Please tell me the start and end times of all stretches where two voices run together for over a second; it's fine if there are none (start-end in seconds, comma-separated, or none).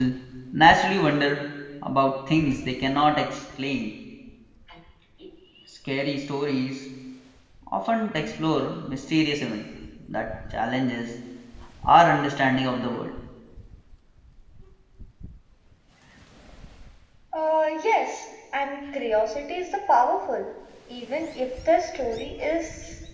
none